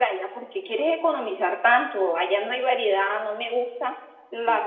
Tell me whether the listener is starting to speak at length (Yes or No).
Yes